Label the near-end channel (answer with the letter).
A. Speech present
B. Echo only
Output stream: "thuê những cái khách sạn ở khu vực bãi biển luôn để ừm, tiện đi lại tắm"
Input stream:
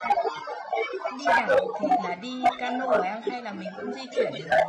A